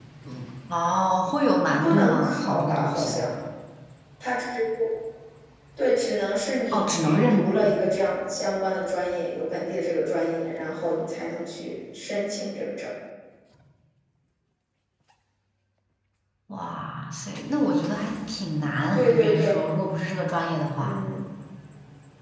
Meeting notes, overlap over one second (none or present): present